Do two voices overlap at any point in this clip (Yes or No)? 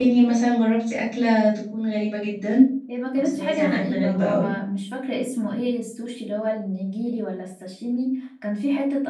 Yes